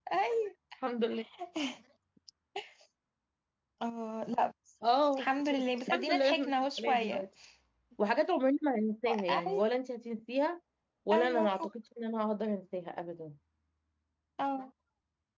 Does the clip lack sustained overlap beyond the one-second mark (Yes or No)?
No